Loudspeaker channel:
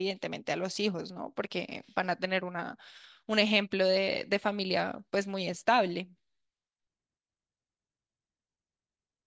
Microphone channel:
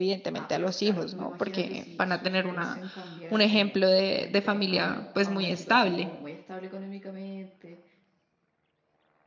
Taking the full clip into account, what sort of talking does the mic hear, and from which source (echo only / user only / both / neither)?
both